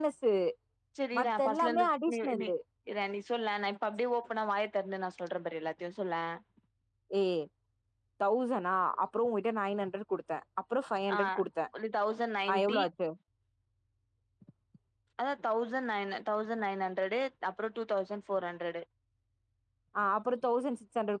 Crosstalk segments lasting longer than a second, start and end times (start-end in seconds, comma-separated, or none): 1.2-2.4